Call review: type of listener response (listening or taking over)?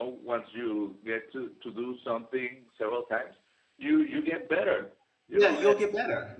taking over